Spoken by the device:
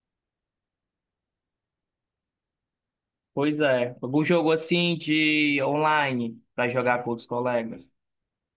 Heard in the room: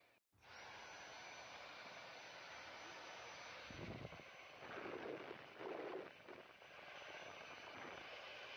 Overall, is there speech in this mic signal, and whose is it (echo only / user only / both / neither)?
neither